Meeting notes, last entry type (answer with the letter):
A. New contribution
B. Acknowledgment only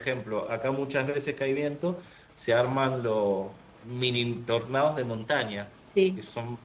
B